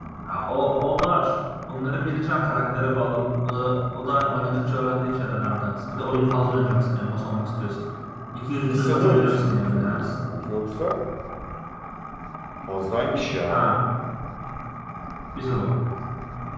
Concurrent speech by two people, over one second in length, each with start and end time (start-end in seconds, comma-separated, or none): 8.6-10.0